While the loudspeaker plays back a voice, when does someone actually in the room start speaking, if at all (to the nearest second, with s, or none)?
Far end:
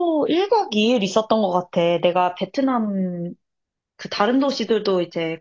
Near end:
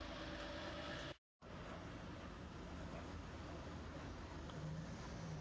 none